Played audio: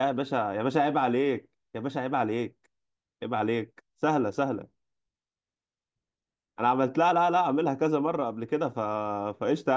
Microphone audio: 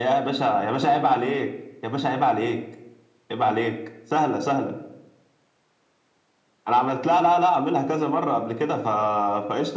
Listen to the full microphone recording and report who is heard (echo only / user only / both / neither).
echo only